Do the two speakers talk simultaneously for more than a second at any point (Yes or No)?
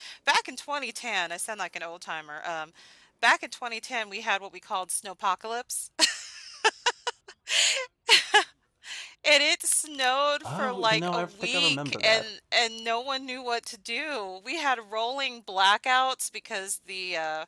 Yes